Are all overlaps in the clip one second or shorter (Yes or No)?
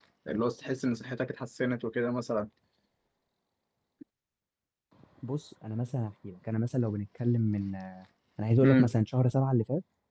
Yes